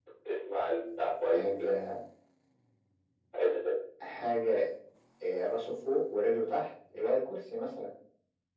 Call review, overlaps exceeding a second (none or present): none